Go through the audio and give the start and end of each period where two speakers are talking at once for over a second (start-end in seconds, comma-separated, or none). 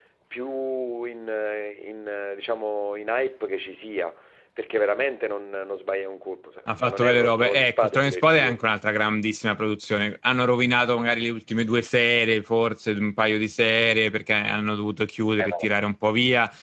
6.8-8.6